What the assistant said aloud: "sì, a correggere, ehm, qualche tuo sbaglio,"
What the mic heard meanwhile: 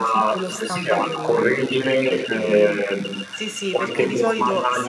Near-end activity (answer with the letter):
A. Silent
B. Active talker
B